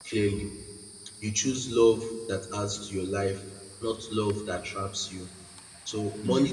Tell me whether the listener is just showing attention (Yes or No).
Yes